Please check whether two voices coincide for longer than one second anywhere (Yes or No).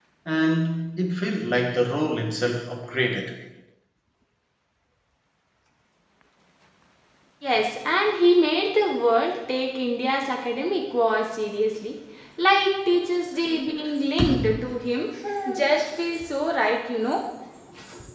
No